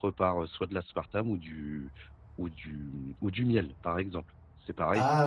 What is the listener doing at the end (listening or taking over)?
listening